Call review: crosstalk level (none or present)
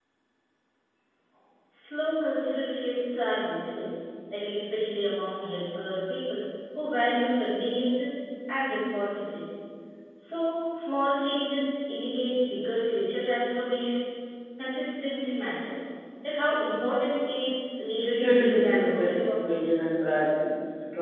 present